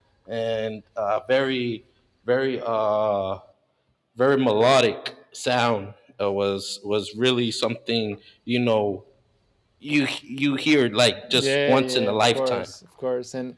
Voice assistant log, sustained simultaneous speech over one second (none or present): present